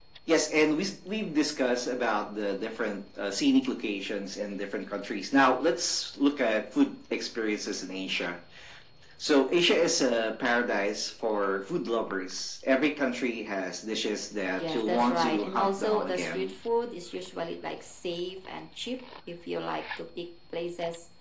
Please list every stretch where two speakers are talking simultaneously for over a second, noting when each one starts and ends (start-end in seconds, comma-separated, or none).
14.6-16.5